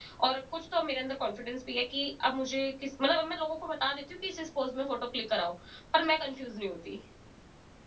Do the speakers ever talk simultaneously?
No

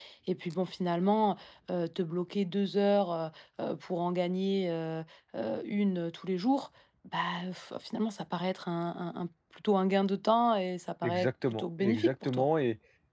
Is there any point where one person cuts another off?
Yes, from 11.0 s

